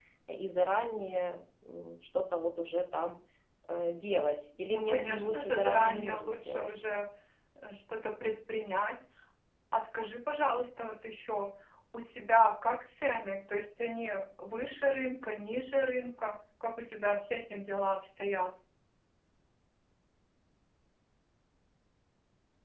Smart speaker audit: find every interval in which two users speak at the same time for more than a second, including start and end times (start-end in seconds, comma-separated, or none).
4.7-6.7